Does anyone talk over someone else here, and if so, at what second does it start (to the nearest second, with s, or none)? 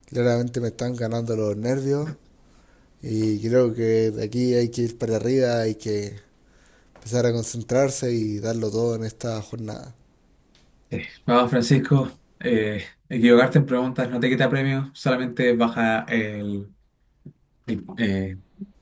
none